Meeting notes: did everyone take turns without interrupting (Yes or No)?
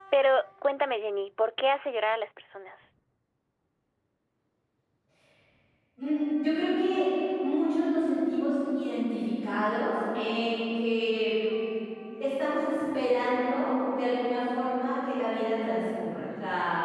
Yes